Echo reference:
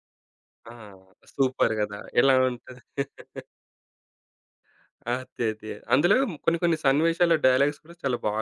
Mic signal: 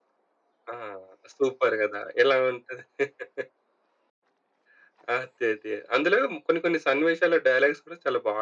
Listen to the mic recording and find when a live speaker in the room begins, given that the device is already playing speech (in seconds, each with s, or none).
none